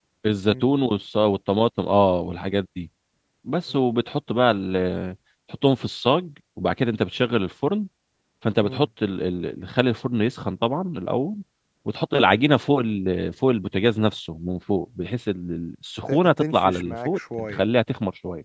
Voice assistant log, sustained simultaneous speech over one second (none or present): present